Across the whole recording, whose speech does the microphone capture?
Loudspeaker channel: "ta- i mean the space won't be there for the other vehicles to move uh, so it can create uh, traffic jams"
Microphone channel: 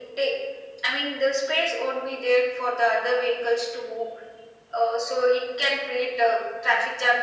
echo only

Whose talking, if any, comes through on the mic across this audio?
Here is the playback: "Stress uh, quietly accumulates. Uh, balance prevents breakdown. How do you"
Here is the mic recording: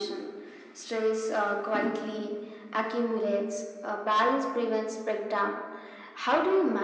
echo only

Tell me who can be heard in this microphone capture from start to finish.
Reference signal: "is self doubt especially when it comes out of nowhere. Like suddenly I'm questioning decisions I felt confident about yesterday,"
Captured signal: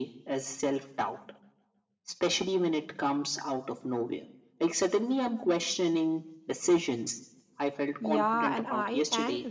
both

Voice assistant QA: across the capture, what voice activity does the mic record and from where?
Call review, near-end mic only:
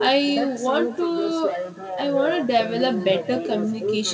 both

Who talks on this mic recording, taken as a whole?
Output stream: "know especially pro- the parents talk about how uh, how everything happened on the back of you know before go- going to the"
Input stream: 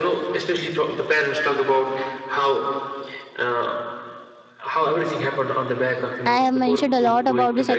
both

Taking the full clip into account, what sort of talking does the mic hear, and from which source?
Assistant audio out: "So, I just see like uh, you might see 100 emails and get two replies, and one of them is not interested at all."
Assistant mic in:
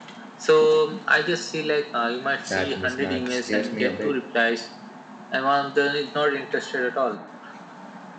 both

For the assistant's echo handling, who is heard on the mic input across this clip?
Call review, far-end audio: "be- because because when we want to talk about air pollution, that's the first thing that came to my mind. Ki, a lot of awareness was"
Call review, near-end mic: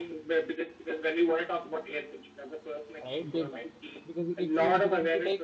both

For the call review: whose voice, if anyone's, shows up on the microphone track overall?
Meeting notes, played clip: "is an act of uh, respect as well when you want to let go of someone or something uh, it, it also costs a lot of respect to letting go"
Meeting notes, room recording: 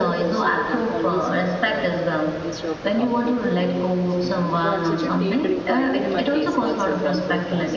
both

